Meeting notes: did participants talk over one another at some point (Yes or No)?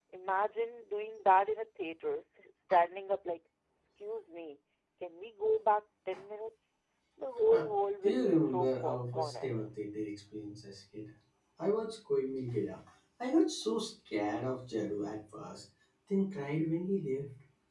Yes